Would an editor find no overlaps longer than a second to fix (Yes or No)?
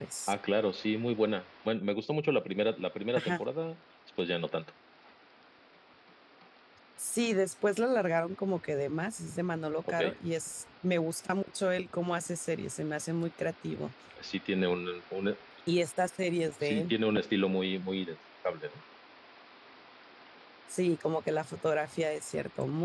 Yes